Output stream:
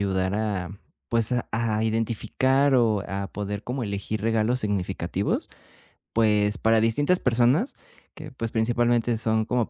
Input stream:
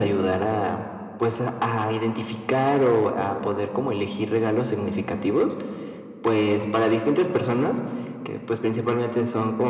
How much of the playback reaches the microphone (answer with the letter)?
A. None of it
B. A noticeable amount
B